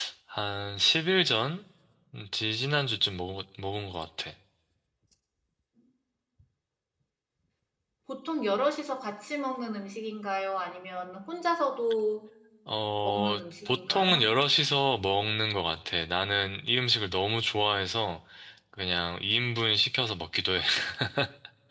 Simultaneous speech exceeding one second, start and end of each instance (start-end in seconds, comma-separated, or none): 13.0-14.3